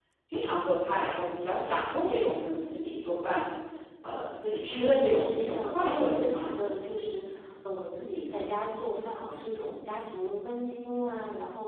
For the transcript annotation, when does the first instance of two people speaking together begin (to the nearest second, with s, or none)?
5 s